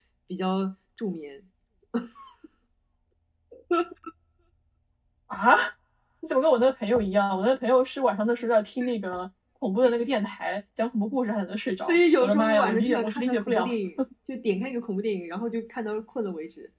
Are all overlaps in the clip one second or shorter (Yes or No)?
No